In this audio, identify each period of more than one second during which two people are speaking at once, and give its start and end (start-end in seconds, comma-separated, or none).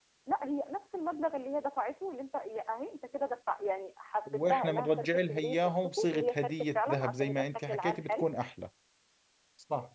4.3-8.2